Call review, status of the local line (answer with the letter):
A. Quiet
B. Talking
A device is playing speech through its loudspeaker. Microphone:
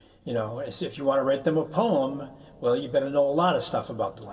B